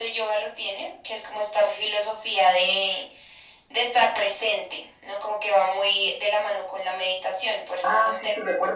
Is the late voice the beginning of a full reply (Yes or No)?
Yes